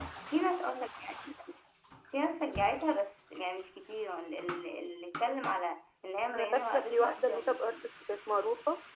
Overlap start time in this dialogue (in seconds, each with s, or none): 6.3 s